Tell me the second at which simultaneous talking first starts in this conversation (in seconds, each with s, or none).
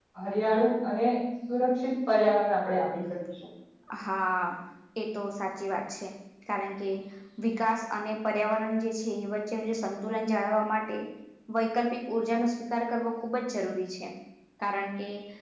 none